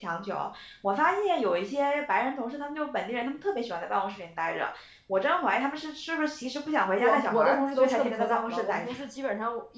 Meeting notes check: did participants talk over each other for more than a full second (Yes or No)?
Yes